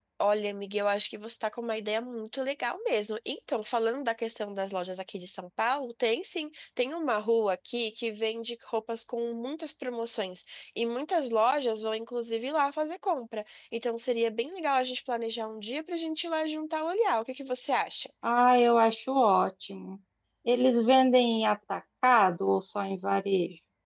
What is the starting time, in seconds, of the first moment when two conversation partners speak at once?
none

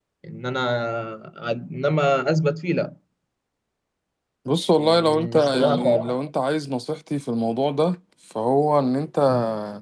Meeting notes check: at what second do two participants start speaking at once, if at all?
4.8 s

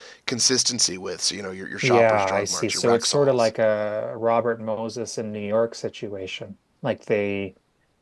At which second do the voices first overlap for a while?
1.8 s

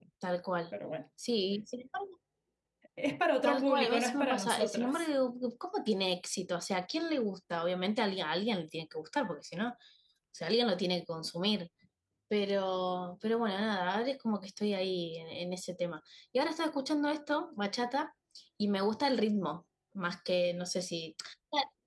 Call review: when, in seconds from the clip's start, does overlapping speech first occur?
3.4 s

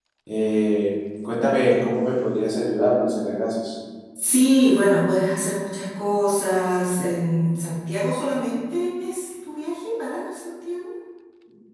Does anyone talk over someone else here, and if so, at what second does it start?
none

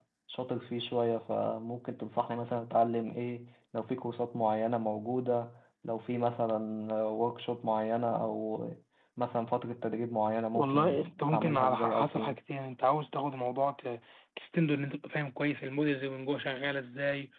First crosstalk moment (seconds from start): 10.5 s

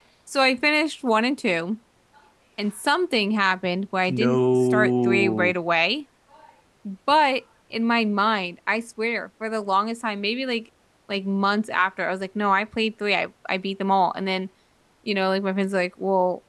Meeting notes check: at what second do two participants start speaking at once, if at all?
4.1 s

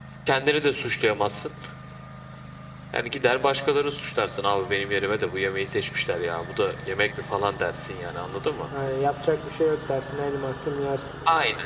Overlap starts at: none

